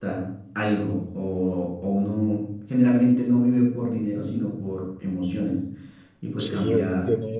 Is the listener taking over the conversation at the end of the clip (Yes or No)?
Yes